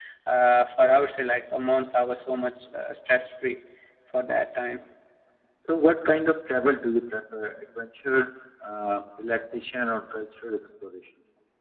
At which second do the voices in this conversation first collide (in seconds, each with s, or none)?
none